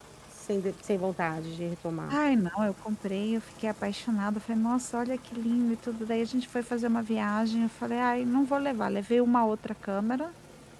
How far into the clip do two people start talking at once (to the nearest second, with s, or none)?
none